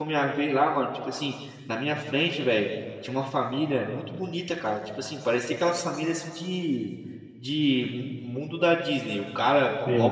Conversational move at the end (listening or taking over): listening